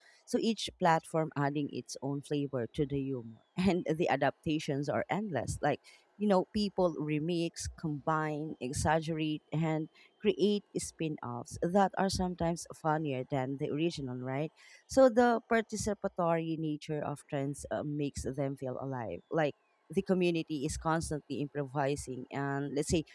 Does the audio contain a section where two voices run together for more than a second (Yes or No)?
No